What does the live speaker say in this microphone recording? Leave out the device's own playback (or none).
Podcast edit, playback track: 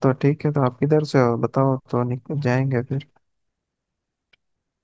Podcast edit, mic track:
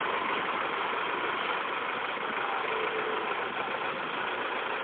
none